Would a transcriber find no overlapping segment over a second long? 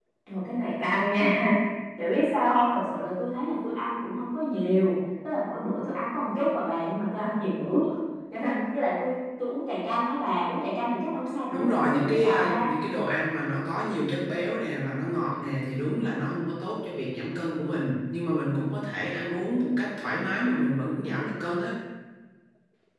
No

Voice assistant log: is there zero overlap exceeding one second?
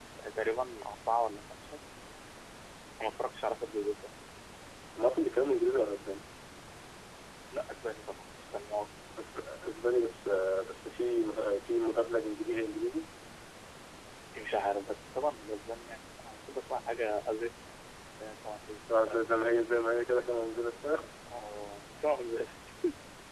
Yes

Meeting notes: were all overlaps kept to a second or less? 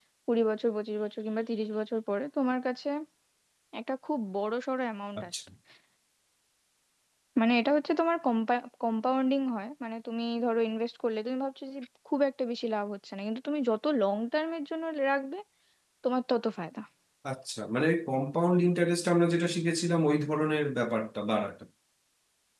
Yes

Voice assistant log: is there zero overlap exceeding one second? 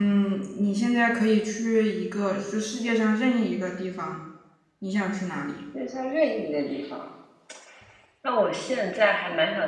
Yes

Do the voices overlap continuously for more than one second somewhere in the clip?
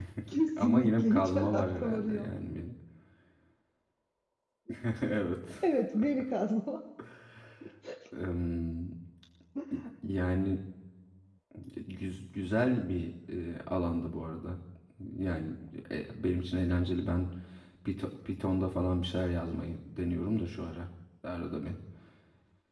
Yes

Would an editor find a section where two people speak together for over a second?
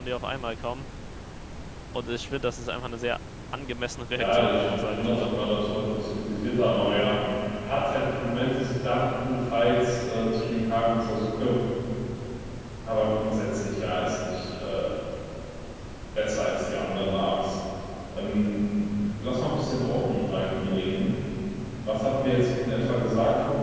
Yes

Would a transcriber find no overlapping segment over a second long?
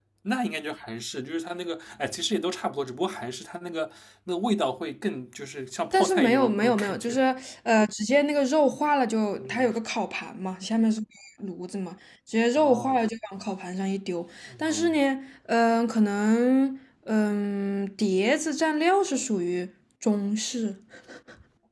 No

